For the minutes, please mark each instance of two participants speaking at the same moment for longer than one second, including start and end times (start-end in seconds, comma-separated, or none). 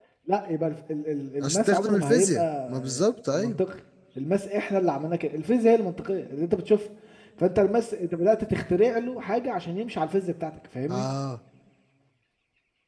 1.4-3.6